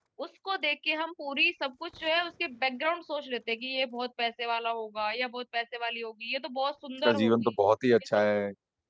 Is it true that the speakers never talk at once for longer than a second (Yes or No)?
Yes